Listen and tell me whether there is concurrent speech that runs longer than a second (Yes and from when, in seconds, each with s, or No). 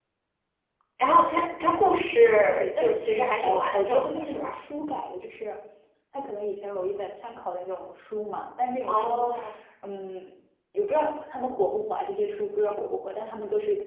Yes, from 2.4 s